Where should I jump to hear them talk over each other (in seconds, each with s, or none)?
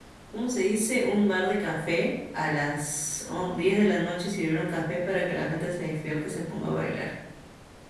none